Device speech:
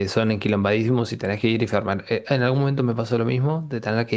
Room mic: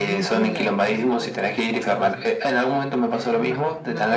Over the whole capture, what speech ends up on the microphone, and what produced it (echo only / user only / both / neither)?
both